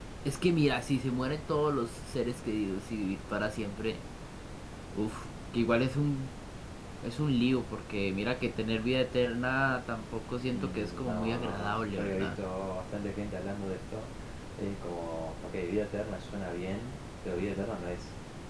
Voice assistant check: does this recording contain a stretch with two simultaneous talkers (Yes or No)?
Yes